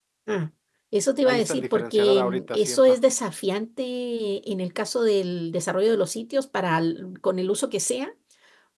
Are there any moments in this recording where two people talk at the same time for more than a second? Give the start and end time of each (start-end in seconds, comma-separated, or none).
1.2-3.0